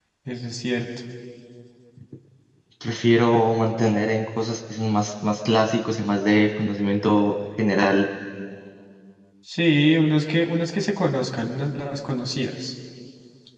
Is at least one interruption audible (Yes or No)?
No